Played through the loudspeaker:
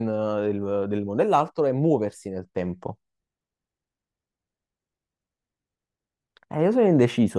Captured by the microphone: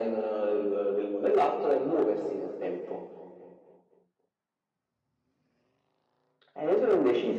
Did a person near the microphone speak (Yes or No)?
No